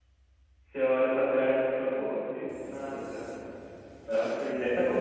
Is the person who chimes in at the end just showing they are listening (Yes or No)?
No